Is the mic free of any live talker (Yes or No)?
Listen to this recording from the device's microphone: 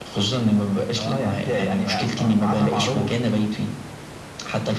Yes